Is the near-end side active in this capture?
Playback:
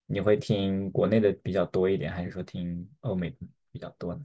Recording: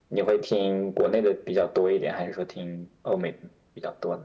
No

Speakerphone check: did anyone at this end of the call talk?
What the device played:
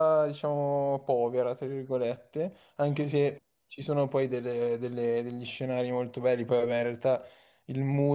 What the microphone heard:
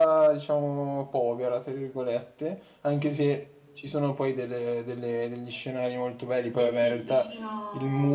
Yes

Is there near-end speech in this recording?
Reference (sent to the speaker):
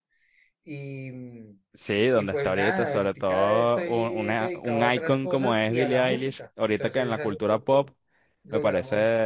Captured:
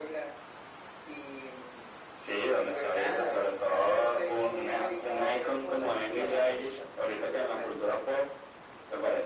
No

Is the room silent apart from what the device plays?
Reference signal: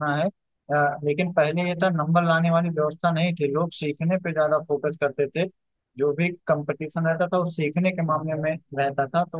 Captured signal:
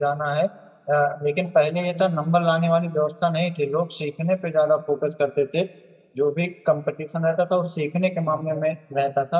Yes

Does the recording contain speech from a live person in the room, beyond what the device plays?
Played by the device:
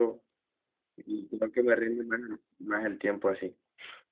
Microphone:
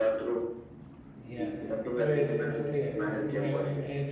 Yes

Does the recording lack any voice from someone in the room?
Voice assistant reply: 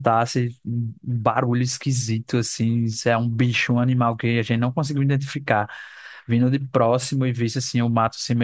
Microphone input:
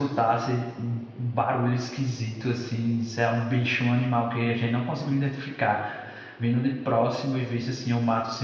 Yes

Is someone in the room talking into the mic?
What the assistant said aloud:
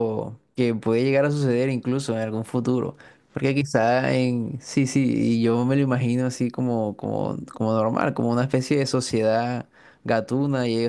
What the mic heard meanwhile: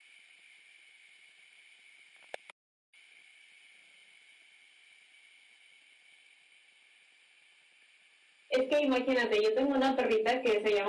Yes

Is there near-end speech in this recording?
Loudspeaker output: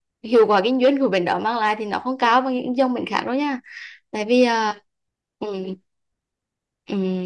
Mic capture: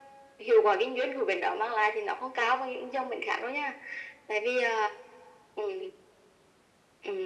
No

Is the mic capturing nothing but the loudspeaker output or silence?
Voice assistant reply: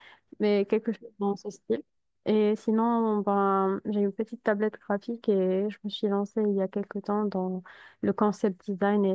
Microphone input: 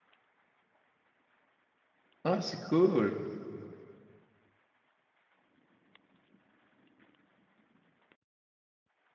No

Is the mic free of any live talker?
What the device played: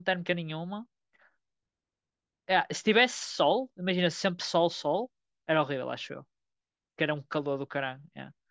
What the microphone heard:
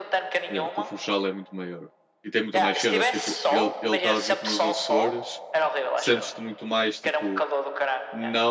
No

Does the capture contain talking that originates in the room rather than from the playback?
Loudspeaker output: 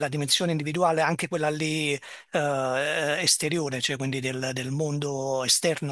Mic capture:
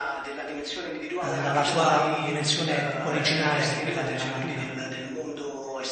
Yes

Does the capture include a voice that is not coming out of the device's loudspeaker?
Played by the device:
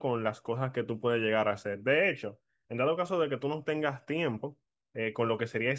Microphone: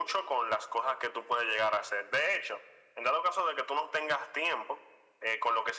No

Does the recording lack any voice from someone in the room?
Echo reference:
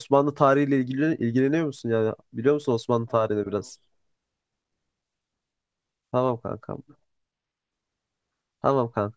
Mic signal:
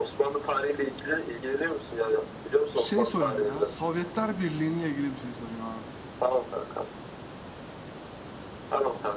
No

